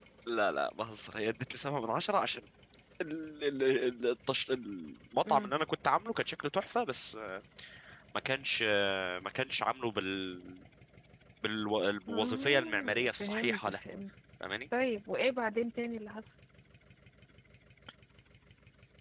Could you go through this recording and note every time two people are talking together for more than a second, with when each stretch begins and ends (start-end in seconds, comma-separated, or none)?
12.1-13.8